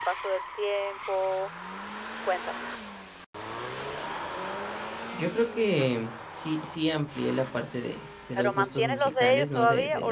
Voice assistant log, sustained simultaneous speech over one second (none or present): present